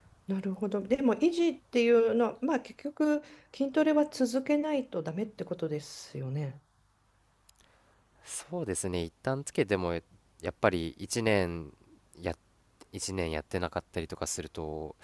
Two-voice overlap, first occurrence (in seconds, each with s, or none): none